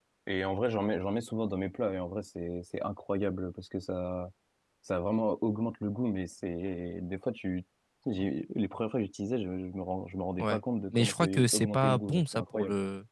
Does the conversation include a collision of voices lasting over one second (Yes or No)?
Yes